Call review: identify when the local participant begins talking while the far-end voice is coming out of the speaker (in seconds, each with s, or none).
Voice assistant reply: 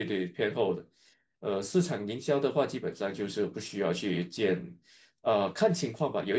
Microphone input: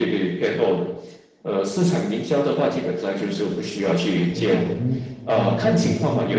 4.3 s